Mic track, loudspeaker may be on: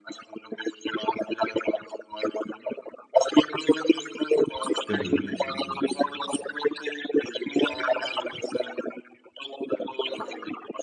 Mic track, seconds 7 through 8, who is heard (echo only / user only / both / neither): echo only